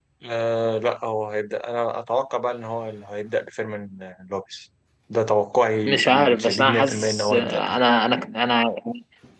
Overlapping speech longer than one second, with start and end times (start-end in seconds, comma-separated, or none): 5.8-7.8